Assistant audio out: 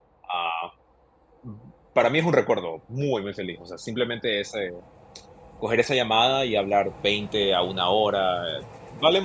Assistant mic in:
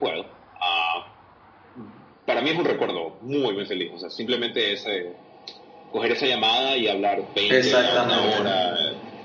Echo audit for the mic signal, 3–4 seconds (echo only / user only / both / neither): echo only